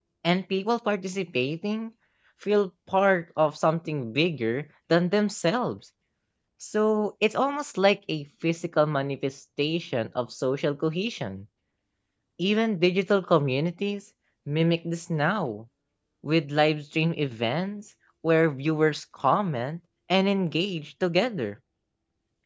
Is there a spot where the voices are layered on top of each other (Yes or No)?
No